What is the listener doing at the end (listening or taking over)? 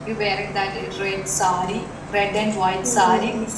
taking over